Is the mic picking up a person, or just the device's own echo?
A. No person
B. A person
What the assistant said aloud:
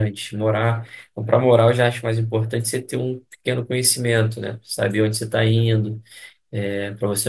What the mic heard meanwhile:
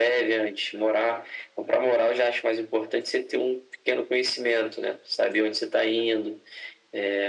A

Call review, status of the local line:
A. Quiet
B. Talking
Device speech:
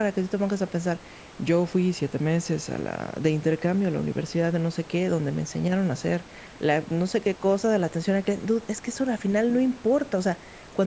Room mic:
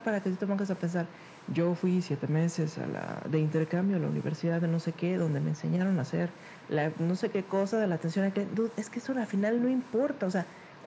A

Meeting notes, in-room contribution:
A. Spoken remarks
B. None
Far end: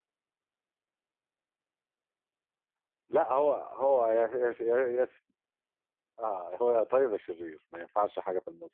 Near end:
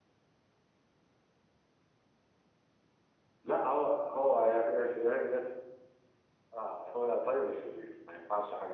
B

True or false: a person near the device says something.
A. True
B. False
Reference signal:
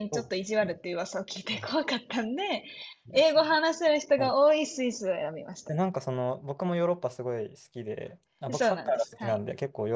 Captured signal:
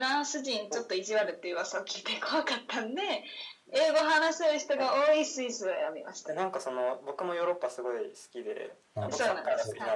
A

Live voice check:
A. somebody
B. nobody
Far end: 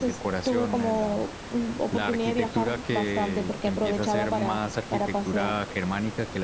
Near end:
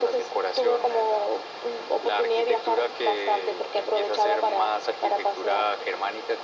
B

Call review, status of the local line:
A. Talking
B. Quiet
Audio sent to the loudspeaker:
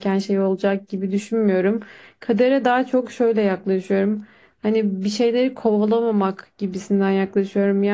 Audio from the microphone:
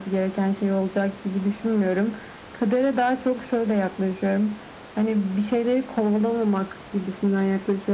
B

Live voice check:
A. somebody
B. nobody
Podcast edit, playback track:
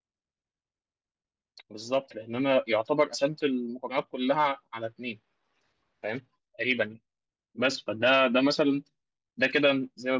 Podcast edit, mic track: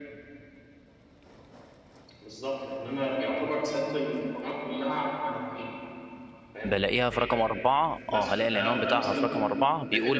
A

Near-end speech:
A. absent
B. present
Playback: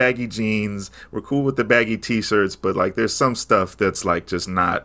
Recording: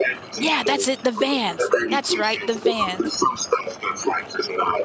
B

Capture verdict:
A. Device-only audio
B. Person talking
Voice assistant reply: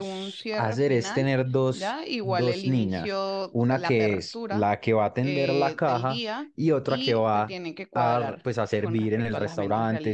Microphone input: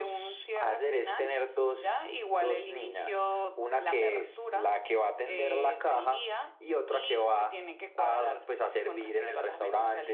A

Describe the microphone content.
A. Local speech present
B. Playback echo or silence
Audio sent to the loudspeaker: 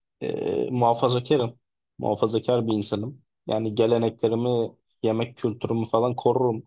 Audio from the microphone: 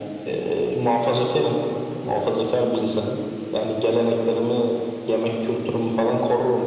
B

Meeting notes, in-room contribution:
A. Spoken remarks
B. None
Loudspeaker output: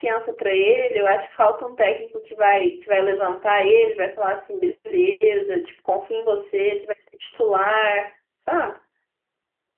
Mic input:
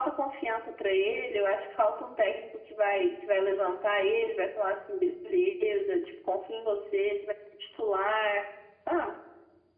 B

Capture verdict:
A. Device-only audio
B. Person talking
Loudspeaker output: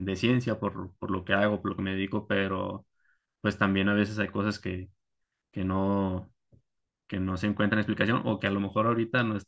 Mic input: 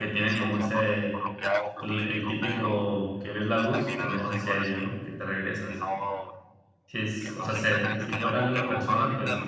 B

